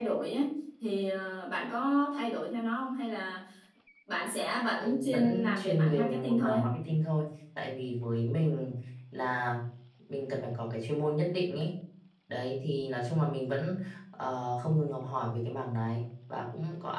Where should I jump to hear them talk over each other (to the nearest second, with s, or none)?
5 s